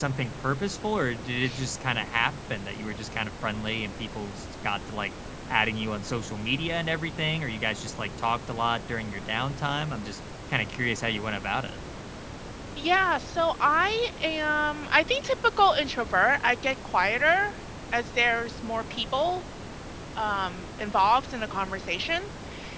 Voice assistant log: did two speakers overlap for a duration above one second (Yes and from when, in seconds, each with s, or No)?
No